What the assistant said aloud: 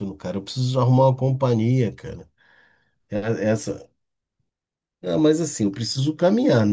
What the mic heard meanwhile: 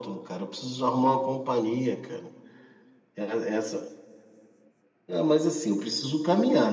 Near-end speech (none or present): none